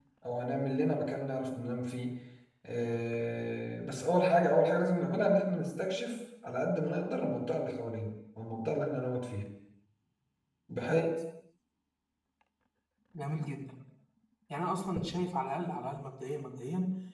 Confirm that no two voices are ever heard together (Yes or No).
Yes